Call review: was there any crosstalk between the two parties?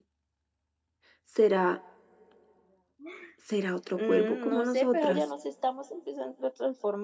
Yes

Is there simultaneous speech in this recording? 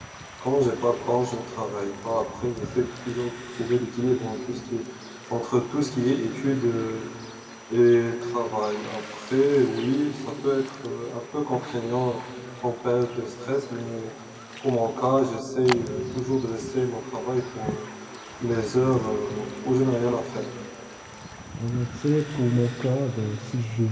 No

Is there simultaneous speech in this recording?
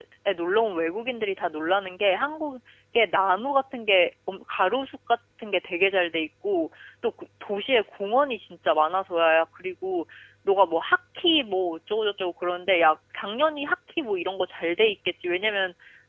No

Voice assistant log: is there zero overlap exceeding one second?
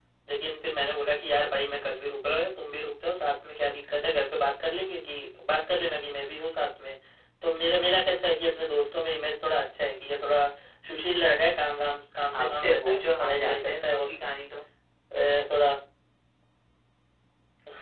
No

